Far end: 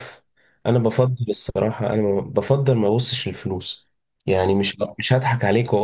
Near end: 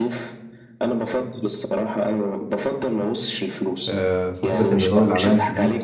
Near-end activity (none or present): present